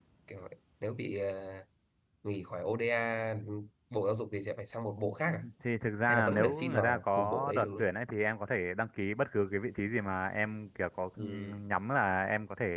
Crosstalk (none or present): present